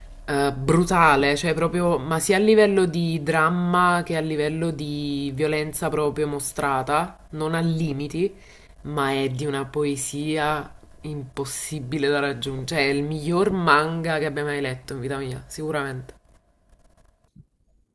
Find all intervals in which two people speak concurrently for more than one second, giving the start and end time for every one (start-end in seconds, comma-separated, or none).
none